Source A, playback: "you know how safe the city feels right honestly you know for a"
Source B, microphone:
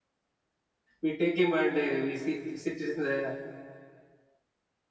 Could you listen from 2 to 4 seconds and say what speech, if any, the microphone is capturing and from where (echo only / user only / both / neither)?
user only